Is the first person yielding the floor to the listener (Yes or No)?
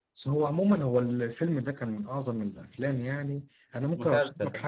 No